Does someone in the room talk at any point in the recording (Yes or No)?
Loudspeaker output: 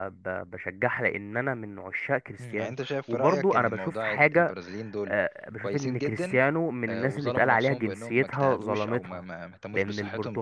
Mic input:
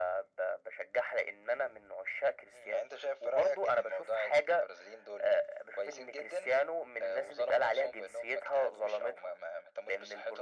No